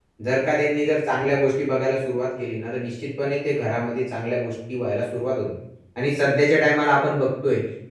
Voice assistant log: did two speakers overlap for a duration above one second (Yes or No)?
No